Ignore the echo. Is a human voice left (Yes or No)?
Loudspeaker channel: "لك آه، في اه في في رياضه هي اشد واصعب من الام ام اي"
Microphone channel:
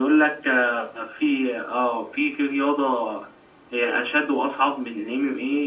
No